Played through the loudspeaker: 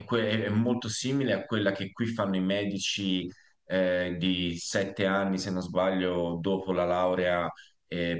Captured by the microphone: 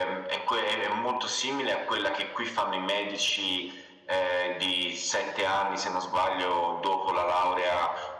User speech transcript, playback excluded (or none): none